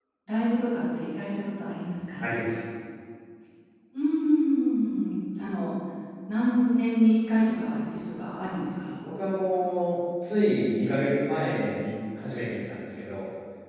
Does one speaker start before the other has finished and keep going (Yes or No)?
No